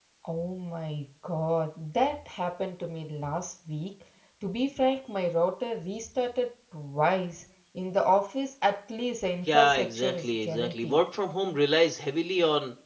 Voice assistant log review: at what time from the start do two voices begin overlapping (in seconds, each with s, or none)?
9.5 s